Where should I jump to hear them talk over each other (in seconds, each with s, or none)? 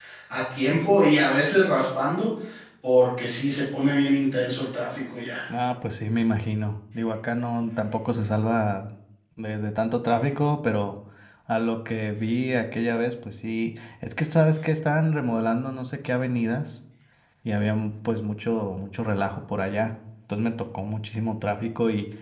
none